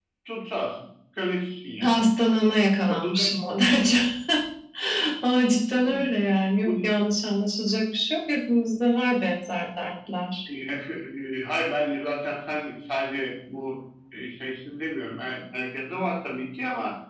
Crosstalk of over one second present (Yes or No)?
No